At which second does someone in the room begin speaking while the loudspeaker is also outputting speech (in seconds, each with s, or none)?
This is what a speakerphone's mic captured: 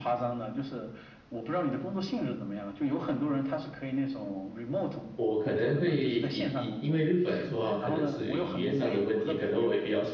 5.2 s